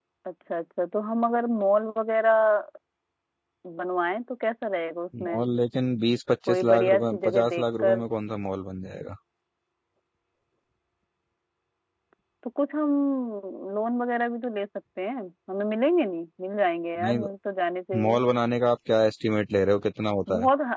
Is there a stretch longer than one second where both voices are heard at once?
Yes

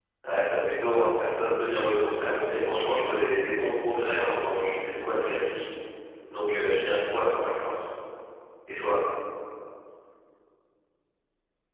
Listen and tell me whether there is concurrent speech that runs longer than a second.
Yes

